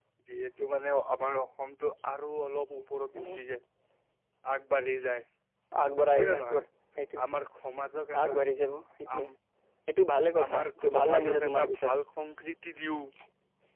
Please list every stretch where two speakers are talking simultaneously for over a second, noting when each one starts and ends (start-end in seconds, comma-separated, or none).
10.4-11.9